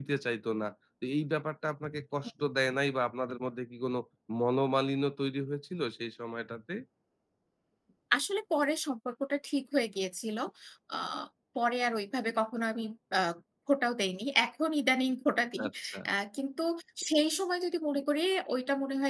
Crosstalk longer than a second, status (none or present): none